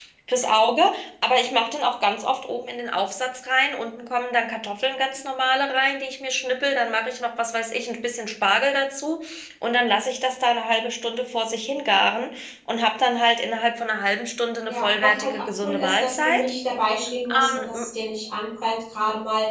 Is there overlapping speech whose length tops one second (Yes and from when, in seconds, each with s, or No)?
Yes, from 14.7 s